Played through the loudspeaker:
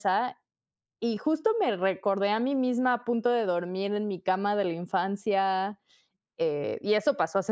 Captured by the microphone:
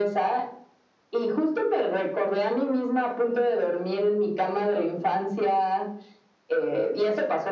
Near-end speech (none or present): none